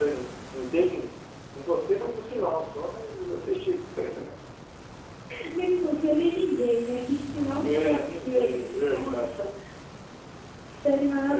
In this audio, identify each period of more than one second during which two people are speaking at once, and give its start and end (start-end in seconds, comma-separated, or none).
7.6-9.3